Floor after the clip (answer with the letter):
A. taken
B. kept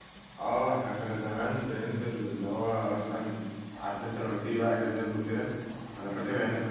B